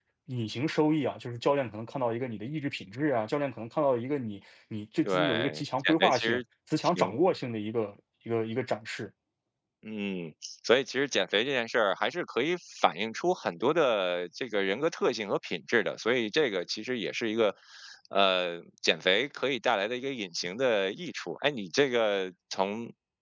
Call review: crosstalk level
present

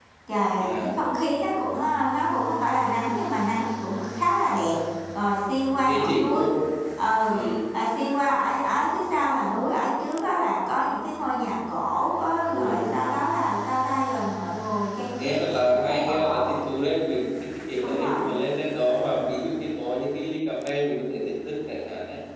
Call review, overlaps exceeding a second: present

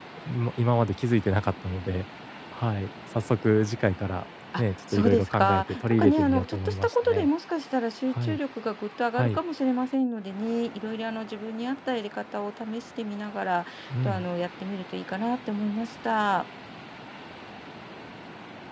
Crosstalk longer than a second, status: present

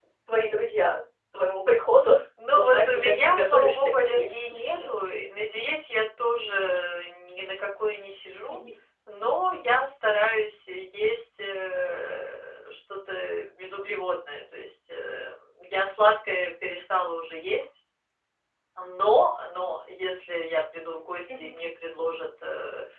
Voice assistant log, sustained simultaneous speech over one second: present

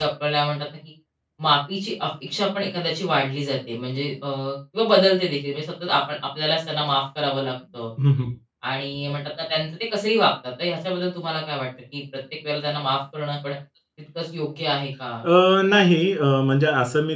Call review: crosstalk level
none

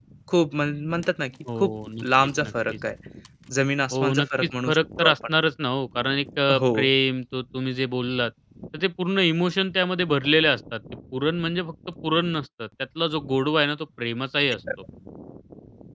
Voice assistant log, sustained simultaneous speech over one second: present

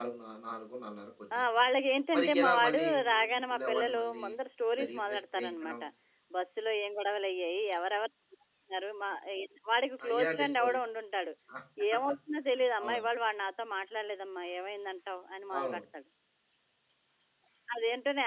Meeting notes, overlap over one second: present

